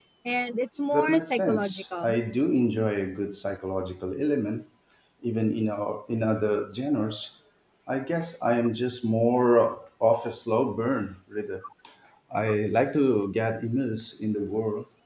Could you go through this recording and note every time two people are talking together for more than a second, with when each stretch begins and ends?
0.9-2.1

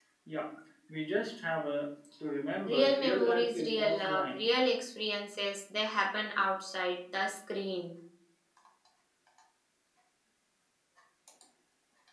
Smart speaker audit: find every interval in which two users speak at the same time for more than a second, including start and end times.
2.6-4.5

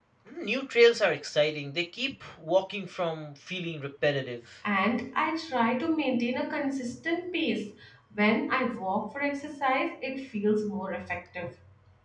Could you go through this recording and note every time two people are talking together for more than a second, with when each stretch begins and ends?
none

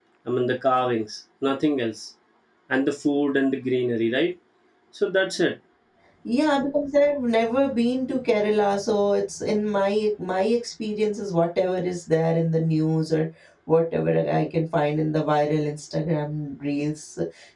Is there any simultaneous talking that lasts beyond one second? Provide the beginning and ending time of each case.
none

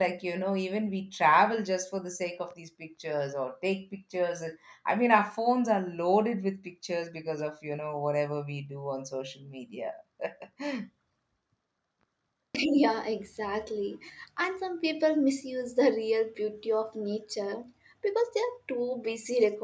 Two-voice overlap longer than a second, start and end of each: none

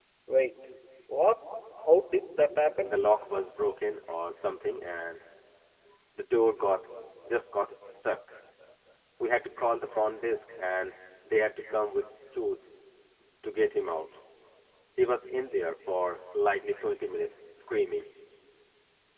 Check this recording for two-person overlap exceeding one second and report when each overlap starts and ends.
none

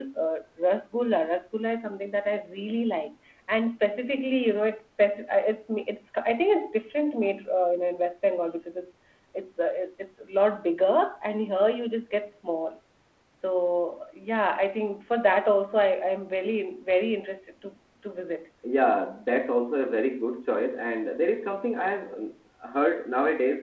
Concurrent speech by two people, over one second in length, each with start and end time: none

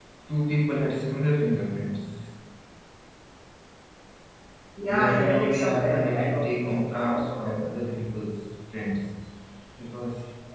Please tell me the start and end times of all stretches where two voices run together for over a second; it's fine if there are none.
4.9-7.4

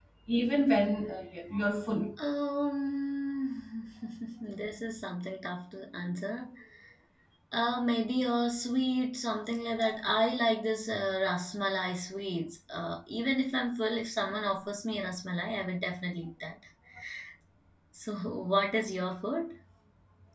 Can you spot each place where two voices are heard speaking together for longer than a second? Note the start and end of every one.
none

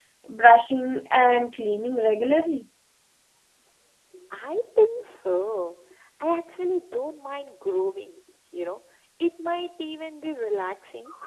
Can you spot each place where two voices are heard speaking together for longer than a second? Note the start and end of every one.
none

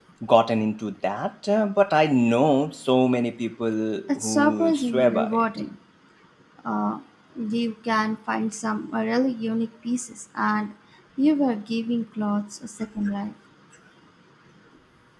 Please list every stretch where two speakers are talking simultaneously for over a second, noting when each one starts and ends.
4.2-5.5

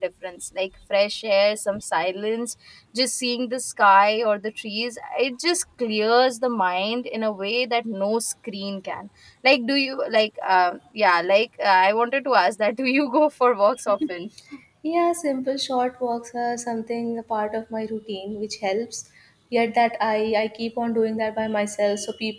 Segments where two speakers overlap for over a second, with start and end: none

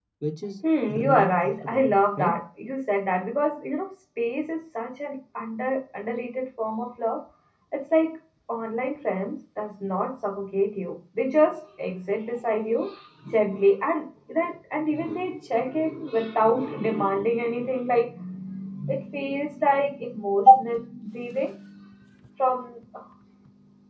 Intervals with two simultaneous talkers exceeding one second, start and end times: 1.0-2.3

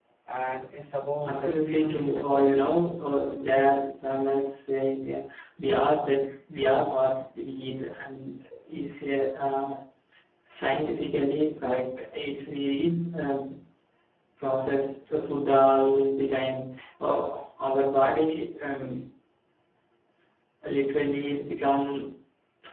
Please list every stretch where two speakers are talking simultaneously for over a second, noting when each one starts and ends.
1.3-2.5

